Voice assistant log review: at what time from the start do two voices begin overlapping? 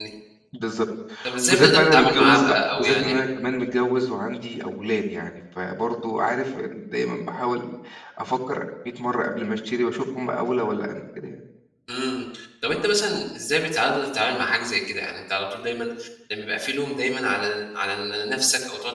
1.5 s

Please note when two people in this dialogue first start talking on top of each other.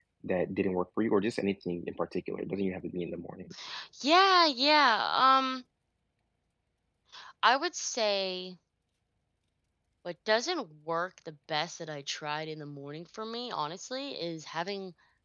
none

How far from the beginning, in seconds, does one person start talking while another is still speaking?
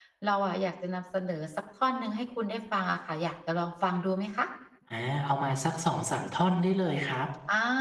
none

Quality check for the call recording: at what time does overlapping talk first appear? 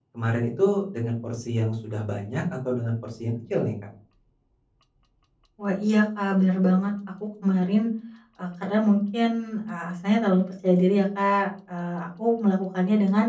none

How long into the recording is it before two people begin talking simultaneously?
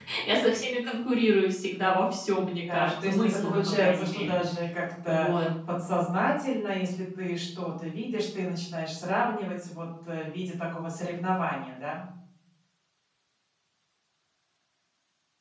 2.7 s

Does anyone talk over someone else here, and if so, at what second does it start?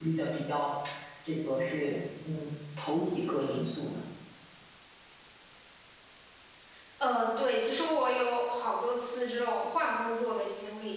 none

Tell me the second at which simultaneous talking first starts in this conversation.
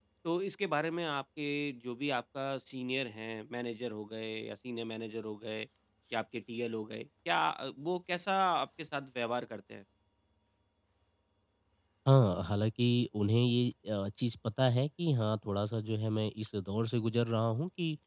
none

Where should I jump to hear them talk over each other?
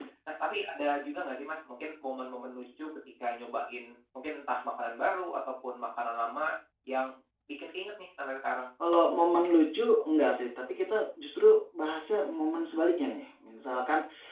none

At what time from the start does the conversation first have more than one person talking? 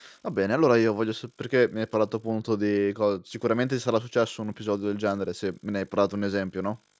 none

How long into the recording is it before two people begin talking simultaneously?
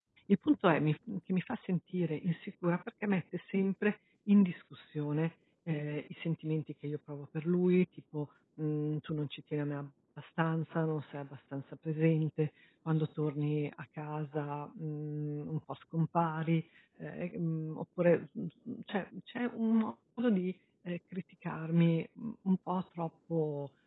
none

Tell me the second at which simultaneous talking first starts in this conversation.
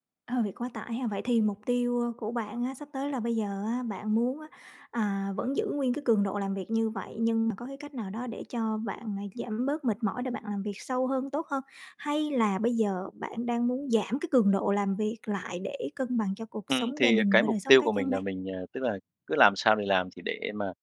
16.7 s

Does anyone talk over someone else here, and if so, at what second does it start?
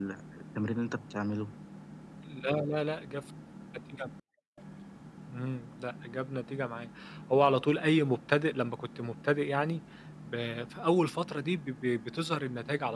none

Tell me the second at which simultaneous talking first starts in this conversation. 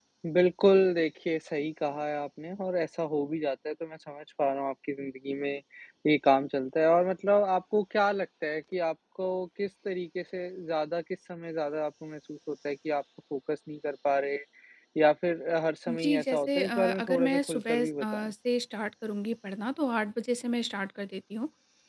15.9 s

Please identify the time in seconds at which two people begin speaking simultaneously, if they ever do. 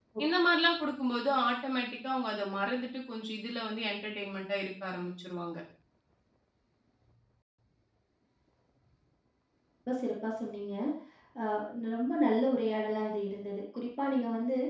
none

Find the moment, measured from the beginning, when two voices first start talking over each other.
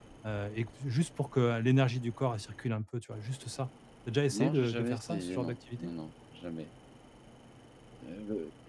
4.3 s

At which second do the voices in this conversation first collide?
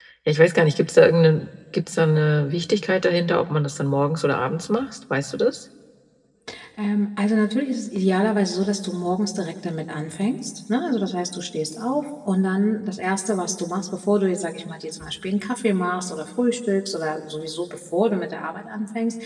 none

